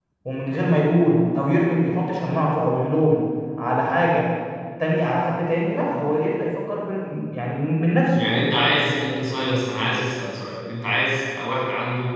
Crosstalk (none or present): none